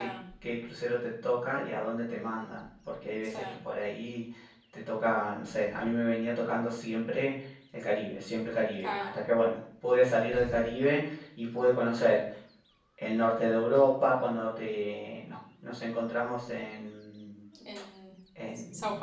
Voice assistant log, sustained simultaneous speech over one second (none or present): none